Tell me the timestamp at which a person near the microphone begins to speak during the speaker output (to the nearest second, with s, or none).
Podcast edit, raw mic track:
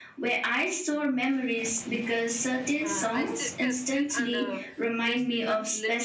3 s